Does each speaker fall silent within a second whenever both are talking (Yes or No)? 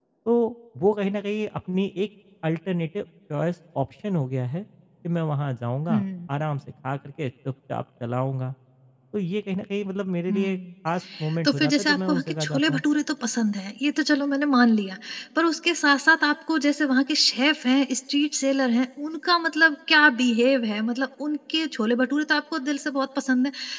No